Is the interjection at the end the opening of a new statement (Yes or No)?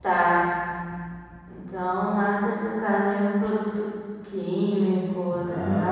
Yes